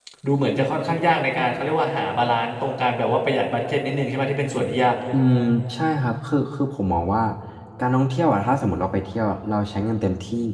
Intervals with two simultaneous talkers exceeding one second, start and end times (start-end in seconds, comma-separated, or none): none